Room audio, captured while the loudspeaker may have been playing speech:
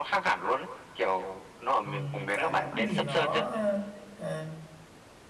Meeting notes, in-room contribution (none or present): present